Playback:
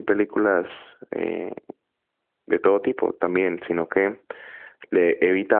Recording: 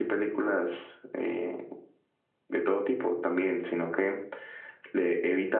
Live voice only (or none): none